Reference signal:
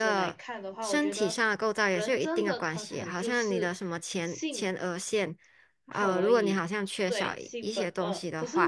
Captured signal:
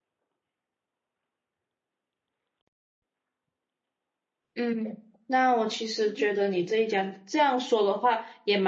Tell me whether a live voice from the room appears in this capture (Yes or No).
Yes